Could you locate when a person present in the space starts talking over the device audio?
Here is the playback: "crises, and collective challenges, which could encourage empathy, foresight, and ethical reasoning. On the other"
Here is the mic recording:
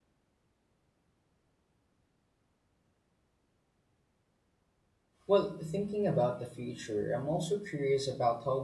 5.3 s

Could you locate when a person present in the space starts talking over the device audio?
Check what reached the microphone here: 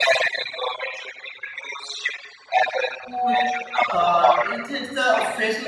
3.1 s

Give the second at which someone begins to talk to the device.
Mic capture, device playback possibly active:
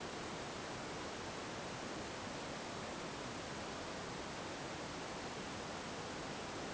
none

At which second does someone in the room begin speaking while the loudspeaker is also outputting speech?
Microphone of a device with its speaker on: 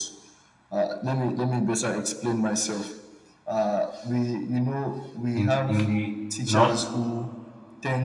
5.3 s

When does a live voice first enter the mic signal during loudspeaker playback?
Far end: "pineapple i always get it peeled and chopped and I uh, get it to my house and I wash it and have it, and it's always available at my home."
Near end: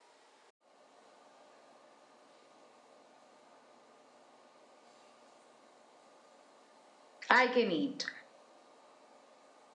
7.3 s

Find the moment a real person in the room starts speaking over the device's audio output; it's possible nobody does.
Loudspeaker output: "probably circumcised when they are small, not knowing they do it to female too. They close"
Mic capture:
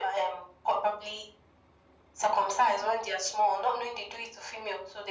none

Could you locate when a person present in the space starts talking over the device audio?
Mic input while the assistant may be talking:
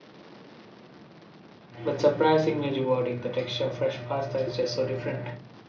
1.8 s

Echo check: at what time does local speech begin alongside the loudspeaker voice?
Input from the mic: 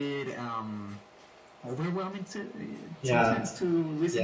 3.0 s

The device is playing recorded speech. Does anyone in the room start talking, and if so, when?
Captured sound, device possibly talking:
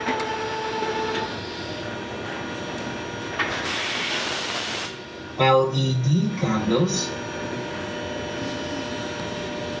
5.4 s

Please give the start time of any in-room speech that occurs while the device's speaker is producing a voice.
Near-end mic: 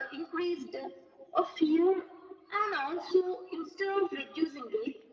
none

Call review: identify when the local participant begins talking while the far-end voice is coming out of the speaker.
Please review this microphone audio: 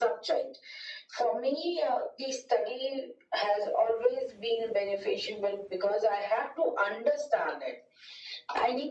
none

